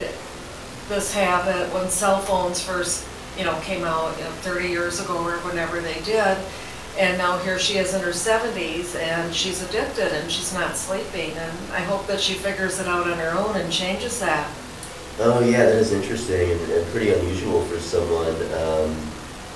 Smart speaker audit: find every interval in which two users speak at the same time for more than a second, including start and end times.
none

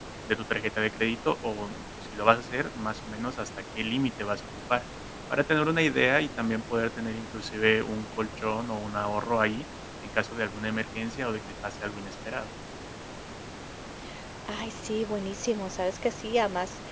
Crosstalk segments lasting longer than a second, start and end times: none

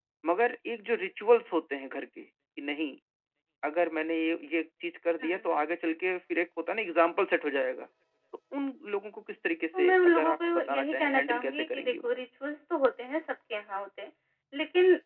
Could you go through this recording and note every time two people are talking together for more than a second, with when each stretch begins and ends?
9.7-12.1

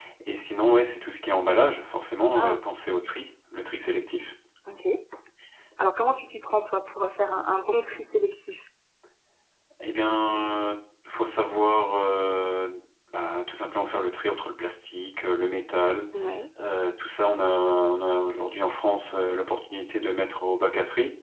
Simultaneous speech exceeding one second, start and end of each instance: none

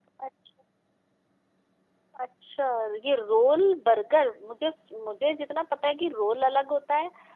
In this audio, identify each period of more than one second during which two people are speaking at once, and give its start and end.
none

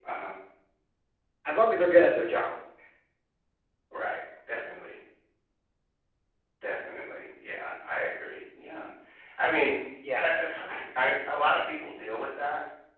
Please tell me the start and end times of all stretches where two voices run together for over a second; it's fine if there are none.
none

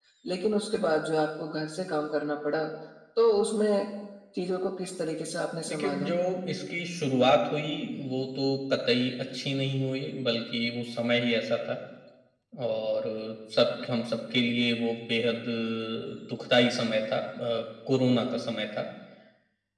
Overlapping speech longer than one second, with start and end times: none

